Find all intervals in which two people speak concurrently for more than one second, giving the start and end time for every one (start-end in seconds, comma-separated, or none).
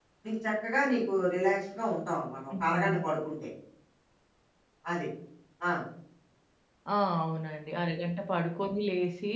none